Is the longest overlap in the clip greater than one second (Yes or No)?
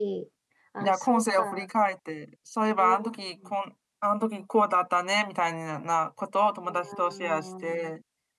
Yes